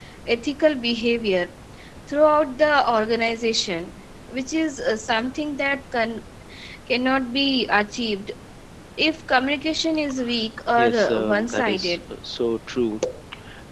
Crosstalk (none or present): present